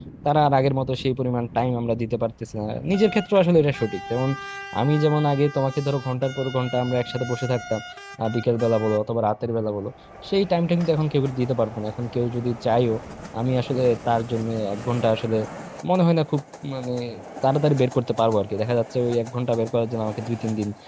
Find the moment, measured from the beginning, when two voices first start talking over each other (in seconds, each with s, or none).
none